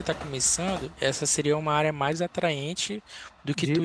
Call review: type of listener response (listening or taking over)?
listening